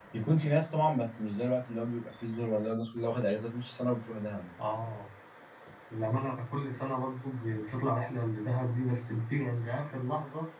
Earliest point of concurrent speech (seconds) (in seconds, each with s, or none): none